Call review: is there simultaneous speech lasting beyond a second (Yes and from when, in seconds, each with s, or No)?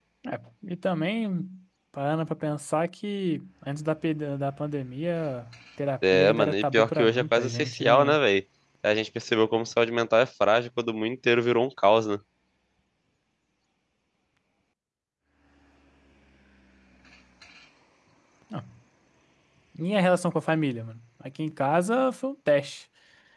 Yes, from 6.0 s